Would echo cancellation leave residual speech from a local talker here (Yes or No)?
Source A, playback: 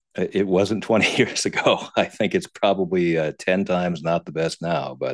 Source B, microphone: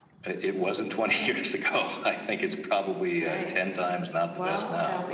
Yes